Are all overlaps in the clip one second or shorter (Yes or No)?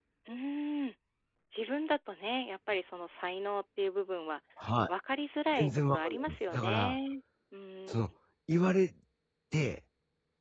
No